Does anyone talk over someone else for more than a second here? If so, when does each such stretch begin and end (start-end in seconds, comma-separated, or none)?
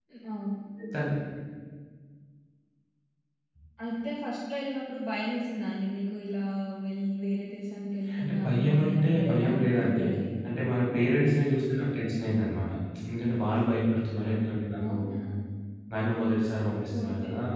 8.2-10.0